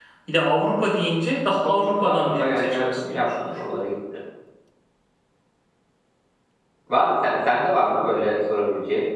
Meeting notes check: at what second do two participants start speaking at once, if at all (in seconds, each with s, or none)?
1.5 s